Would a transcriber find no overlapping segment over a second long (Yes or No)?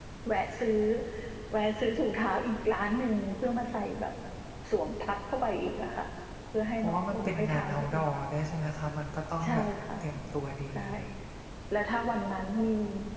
No